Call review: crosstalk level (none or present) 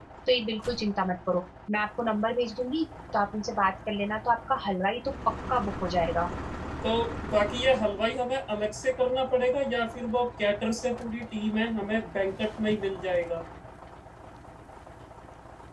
none